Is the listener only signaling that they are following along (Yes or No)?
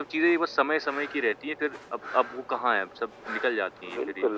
No